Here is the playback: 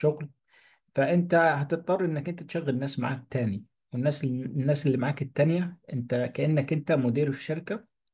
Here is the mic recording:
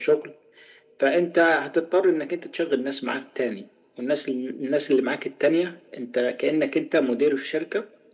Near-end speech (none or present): none